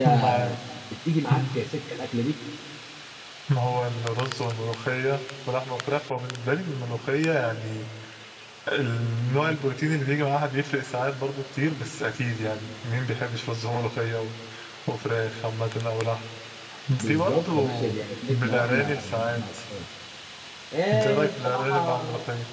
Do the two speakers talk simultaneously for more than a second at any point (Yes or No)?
Yes